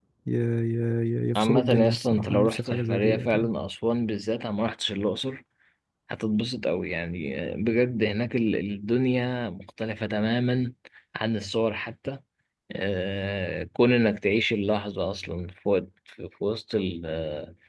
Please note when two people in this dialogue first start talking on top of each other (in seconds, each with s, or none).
1.4 s